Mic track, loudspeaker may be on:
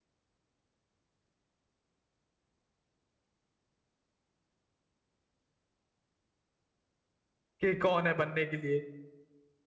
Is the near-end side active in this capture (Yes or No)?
Yes